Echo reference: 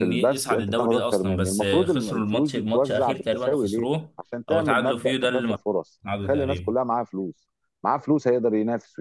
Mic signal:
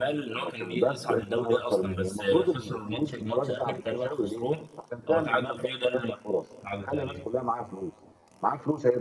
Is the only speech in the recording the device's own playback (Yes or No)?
Yes